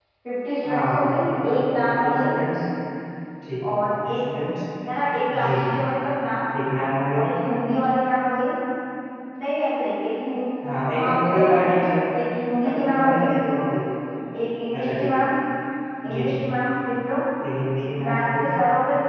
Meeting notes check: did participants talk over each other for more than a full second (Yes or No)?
Yes